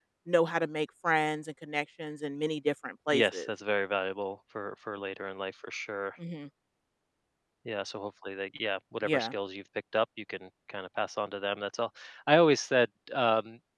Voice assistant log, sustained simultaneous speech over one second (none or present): none